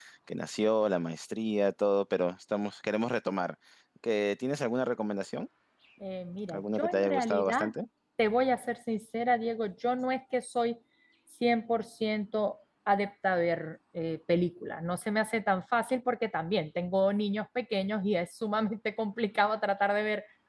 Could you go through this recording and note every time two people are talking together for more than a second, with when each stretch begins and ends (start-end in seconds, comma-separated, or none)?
6.5-7.7